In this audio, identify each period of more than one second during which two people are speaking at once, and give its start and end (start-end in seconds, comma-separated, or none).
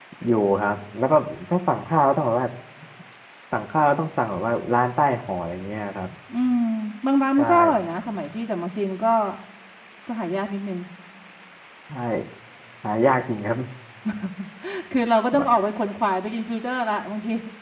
none